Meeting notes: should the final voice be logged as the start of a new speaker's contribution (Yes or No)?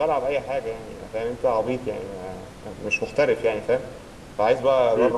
No